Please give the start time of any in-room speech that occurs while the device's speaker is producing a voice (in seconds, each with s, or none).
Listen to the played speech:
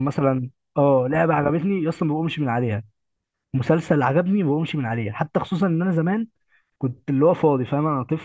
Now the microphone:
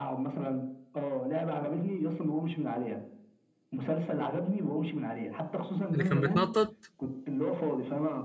5.9 s